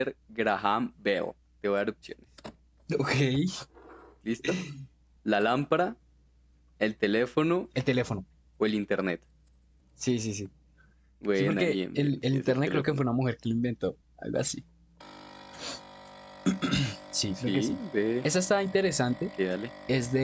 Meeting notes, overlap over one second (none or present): present